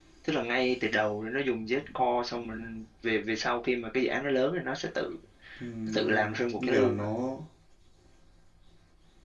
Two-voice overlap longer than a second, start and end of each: 5.9-7.1

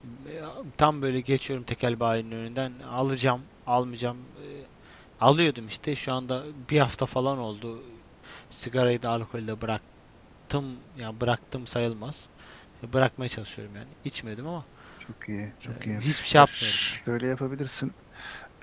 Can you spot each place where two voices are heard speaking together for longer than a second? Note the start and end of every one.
15.7-17.0

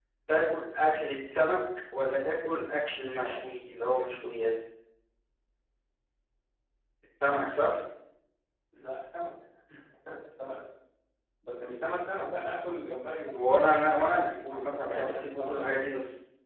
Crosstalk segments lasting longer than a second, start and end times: 13.3-15.6

